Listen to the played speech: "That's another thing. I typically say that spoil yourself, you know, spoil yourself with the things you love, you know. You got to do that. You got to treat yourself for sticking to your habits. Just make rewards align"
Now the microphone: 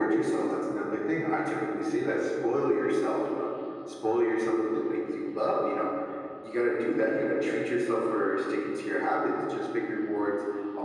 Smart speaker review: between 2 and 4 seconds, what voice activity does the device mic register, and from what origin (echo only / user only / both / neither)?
echo only